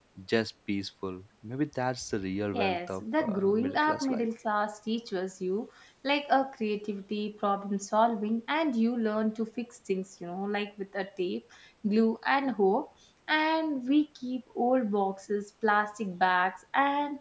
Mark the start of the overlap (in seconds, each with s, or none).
2.5 s